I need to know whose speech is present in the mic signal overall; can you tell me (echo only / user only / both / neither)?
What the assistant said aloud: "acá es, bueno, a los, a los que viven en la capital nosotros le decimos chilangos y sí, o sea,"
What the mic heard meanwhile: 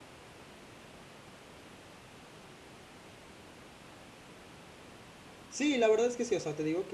user only